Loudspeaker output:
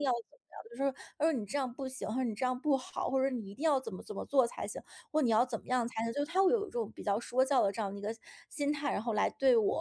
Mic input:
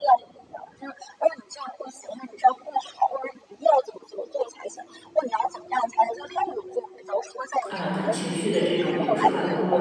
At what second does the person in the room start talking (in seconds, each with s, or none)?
7.7 s